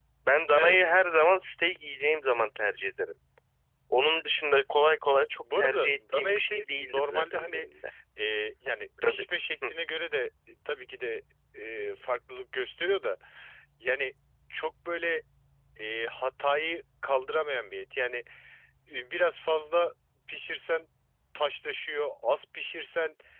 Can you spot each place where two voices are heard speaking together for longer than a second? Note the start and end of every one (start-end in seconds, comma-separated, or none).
5.6-7.7